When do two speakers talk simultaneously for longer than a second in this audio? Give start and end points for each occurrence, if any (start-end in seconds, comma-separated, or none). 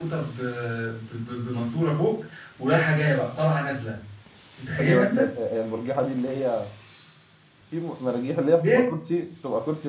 none